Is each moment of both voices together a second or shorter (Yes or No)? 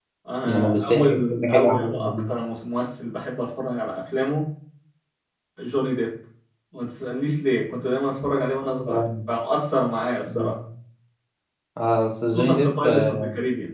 No